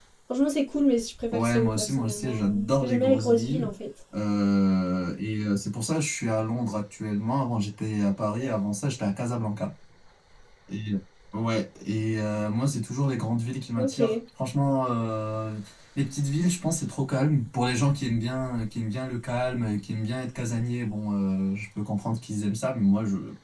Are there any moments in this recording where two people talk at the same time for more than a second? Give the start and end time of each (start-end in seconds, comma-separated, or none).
1.3-3.7